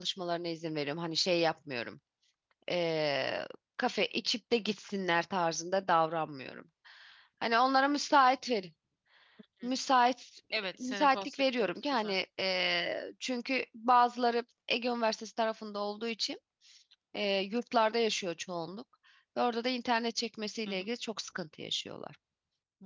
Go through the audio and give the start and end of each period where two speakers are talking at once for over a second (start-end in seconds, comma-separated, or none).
10.8-12.1